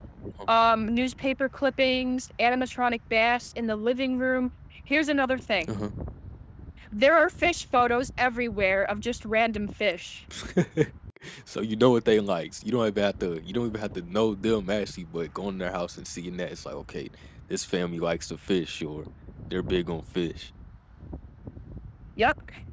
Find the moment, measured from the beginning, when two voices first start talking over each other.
none

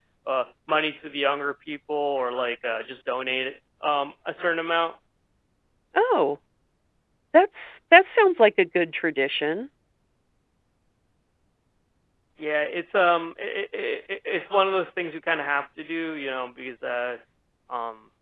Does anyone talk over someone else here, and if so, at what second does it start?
none

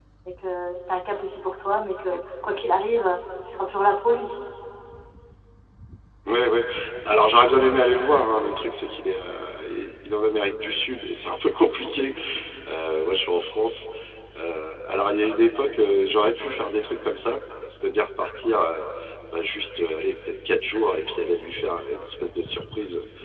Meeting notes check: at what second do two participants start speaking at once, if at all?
none

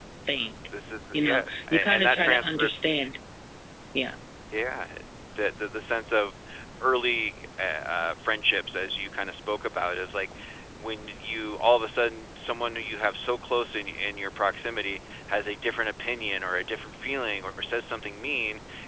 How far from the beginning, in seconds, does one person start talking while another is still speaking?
1 s

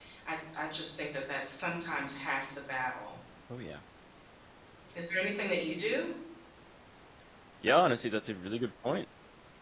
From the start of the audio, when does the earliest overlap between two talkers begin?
none

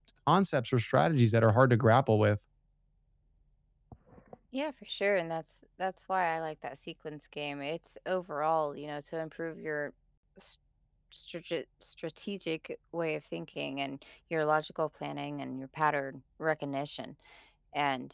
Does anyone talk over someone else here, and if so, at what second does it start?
none

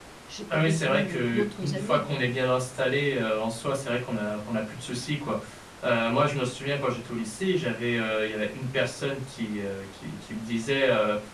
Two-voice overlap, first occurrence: 1 s

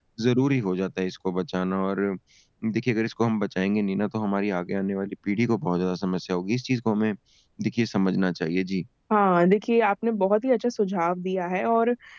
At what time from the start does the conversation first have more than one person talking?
none

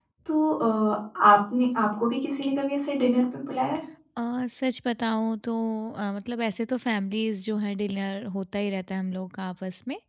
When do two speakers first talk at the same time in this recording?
none

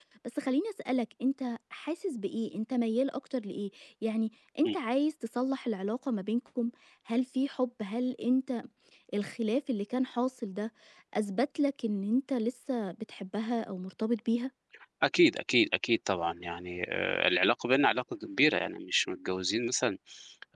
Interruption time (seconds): none

